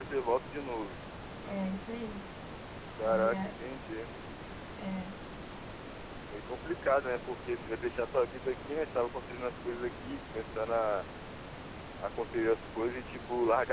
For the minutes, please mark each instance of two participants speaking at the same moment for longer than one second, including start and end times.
none

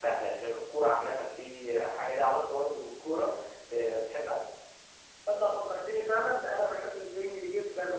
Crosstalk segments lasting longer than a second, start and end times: none

